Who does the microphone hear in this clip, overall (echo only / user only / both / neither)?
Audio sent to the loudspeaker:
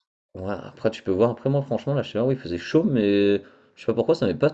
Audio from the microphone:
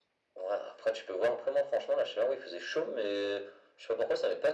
echo only